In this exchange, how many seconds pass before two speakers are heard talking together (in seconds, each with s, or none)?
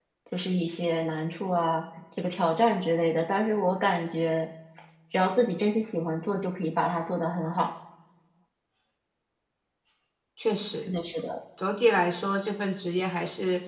none